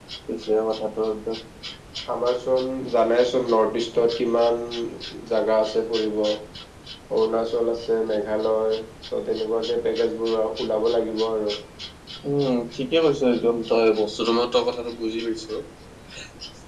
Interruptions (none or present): none